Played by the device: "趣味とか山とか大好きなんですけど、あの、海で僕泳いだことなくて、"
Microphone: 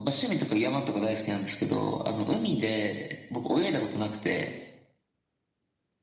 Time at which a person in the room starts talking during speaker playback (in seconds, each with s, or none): none